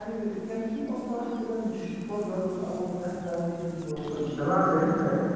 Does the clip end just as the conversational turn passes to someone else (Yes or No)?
Yes